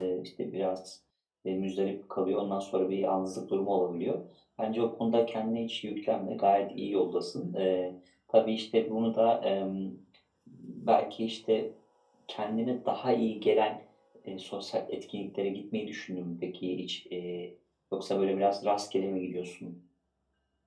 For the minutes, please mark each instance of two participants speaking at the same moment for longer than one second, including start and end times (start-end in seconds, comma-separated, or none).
none